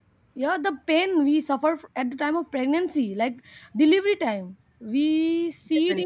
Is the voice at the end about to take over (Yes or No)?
No